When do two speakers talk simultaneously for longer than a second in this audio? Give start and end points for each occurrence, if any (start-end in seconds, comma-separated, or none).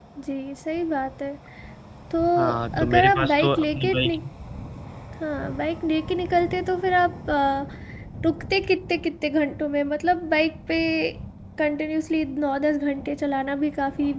2.8-4.2